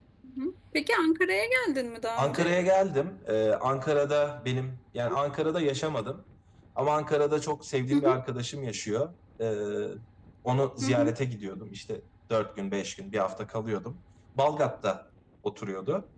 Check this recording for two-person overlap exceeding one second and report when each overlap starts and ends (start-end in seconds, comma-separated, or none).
none